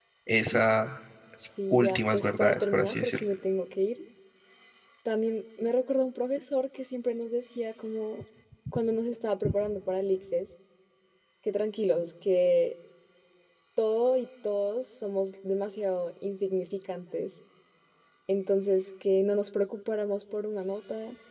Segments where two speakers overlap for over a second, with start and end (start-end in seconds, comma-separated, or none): 1.7-3.2